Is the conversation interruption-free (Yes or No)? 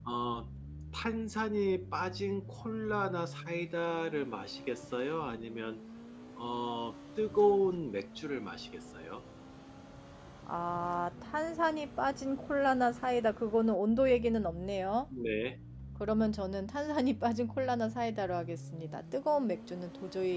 Yes